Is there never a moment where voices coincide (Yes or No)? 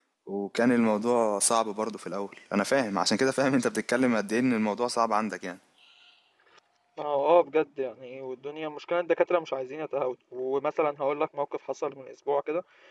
Yes